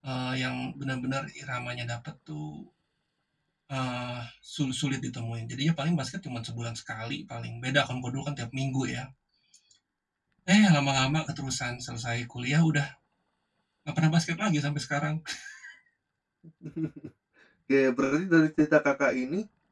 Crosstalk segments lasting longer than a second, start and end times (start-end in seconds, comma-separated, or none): none